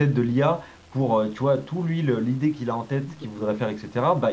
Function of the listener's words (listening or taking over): listening